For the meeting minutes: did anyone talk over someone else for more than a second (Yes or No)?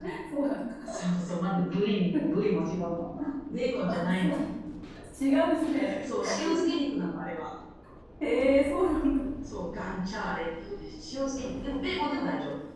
No